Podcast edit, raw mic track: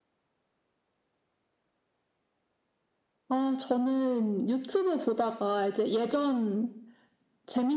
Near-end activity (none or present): none